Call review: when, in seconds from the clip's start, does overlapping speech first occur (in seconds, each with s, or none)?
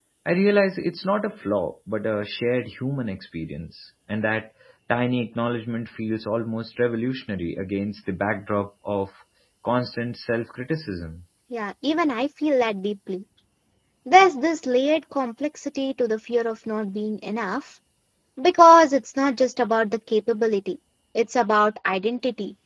none